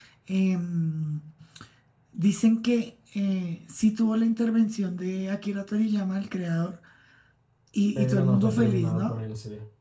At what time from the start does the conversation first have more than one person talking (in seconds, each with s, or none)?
8.0 s